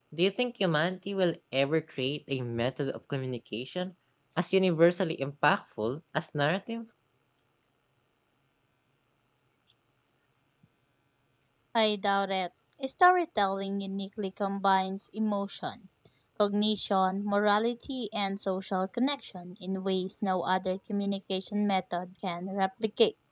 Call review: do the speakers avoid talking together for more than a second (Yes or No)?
Yes